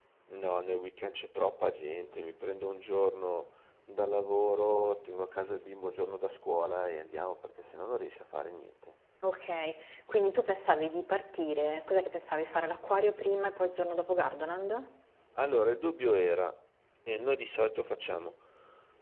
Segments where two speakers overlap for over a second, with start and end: none

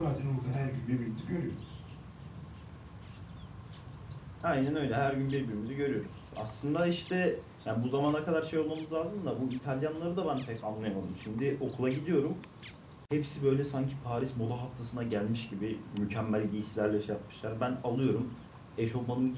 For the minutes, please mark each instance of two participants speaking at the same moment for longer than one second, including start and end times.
none

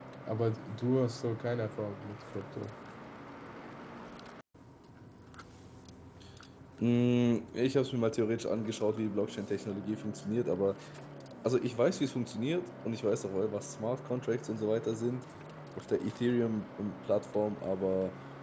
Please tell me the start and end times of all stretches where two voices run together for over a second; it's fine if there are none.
none

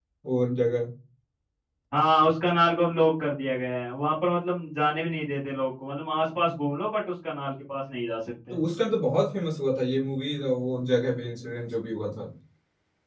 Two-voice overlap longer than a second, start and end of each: none

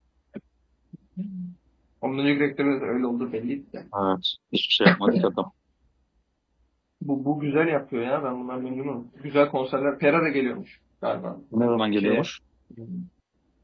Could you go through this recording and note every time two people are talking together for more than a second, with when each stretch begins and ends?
none

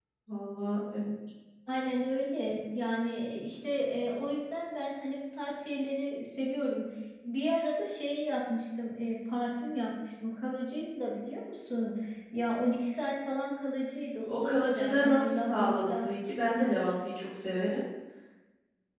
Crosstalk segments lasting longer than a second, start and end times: 14.3-16.1

